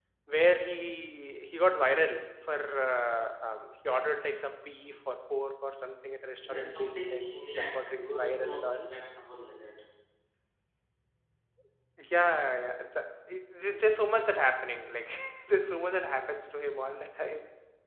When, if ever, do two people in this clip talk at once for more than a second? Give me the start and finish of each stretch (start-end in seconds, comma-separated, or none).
6.4-8.9